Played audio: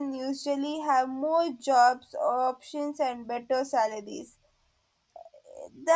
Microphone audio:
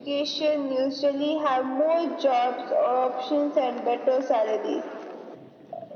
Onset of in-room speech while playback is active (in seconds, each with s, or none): none